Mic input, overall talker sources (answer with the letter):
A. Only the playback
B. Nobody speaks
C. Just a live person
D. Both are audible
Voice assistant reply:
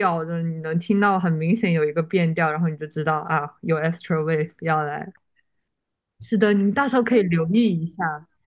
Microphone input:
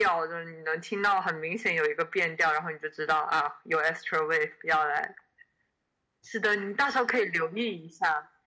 A